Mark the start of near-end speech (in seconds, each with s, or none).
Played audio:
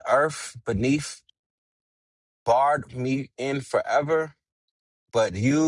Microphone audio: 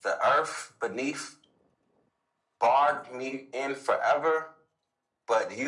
none